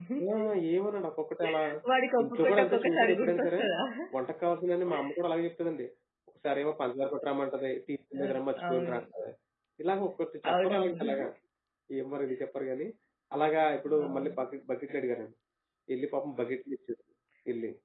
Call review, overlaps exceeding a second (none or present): present